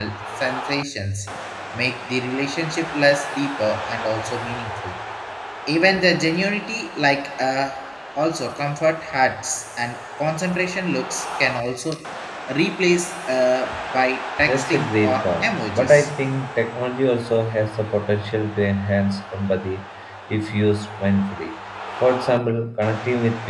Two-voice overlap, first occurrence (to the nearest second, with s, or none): 14 s